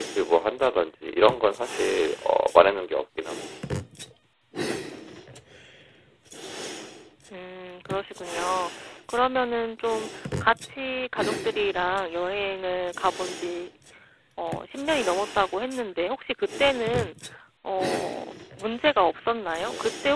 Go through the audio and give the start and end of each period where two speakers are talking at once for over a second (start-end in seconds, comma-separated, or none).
none